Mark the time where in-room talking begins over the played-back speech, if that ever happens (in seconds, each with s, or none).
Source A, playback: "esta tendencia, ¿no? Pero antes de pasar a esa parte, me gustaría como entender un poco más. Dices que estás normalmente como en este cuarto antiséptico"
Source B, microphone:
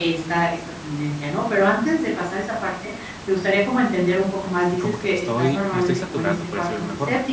4.7 s